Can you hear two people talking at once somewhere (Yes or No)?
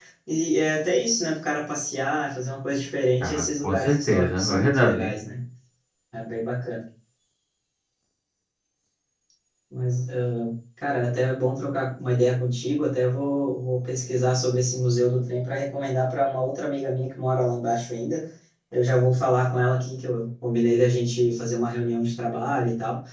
Yes